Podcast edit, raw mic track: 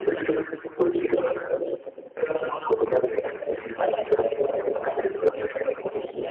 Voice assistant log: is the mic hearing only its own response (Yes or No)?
Yes